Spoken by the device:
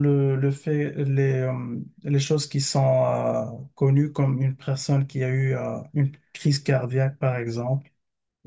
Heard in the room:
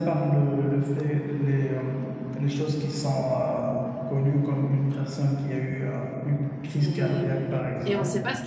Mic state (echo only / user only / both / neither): both